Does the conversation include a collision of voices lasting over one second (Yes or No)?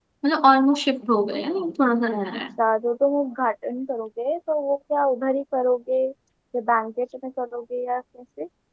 No